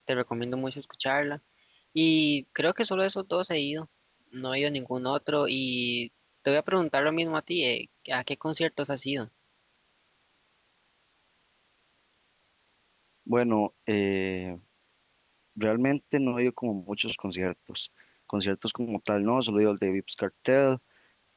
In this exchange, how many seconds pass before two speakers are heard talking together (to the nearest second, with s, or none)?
none